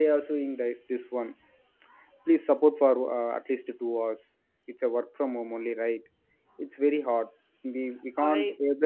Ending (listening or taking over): listening